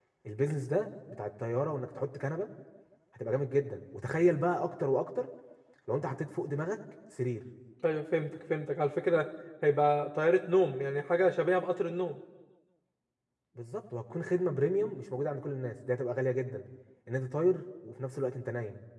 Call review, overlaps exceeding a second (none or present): none